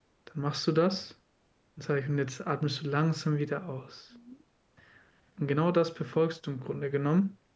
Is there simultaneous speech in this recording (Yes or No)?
No